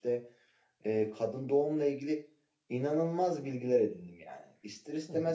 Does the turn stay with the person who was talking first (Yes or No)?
Yes